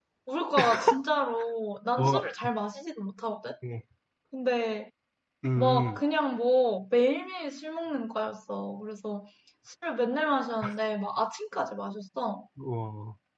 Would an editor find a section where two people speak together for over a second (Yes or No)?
No